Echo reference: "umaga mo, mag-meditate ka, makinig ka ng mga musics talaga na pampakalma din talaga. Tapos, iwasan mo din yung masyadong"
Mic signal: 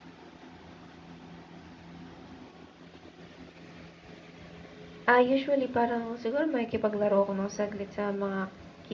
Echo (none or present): none